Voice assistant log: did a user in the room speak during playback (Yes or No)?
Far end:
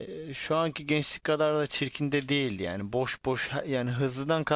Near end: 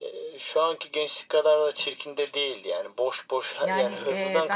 Yes